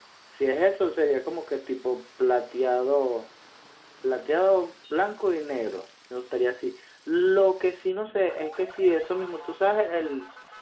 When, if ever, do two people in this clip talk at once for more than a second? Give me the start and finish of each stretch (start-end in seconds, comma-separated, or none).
none